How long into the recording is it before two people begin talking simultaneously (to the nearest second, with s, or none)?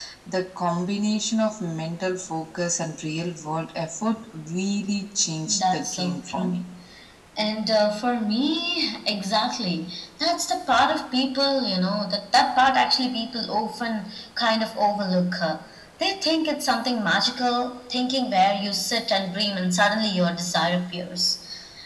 5 s